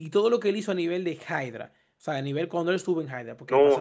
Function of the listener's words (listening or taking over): taking over